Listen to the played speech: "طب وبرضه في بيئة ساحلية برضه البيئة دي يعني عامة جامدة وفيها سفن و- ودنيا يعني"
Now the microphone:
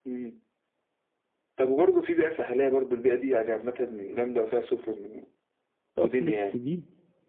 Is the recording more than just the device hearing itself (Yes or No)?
Yes